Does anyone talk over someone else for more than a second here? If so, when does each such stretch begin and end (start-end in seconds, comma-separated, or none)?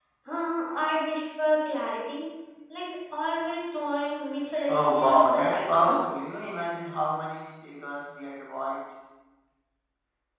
4.7-6.0